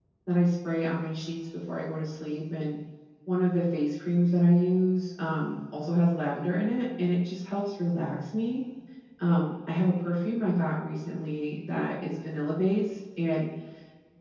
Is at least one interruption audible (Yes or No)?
No